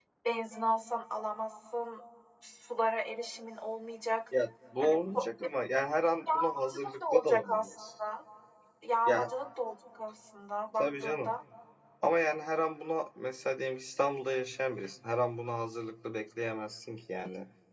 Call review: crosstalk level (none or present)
present